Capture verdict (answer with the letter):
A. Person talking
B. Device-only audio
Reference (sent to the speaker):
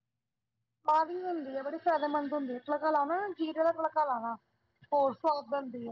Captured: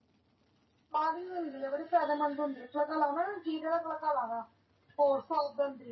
B